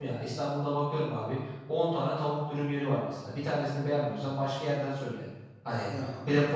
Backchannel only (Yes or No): Yes